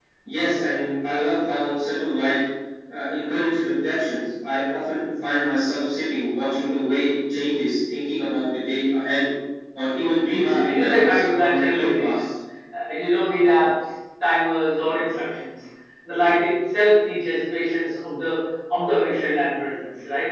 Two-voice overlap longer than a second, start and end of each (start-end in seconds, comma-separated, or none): 10.3-12.3